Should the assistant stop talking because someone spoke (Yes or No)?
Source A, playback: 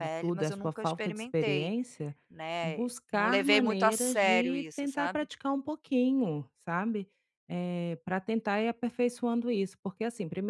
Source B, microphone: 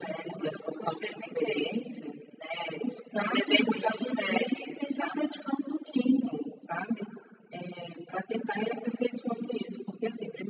No